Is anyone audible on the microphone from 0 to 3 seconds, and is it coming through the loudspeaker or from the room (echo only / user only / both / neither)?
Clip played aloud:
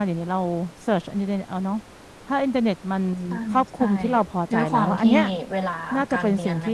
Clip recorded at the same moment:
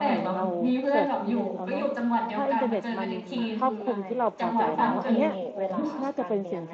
both